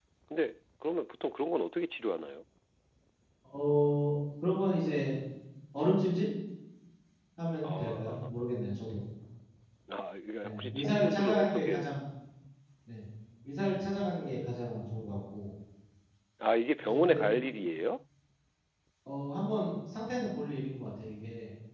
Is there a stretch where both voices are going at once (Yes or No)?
Yes